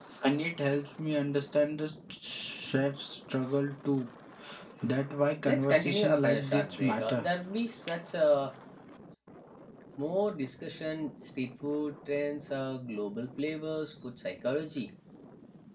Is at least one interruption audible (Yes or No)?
Yes